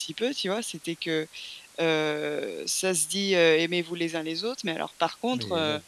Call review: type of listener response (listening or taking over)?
listening